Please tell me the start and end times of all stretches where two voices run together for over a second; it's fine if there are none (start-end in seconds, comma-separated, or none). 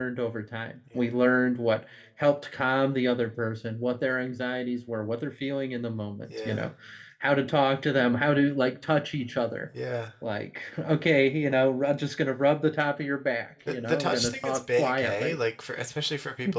13.7-15.4